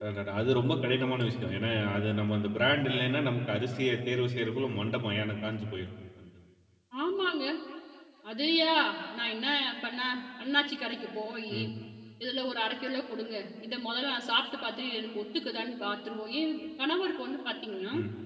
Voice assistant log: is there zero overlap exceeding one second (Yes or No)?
Yes